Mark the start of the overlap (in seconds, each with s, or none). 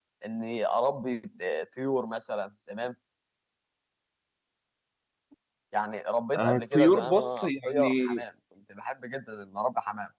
6.4 s